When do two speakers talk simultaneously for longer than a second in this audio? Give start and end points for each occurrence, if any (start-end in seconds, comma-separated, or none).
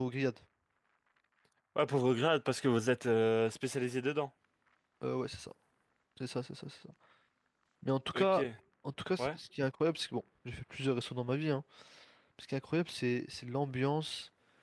none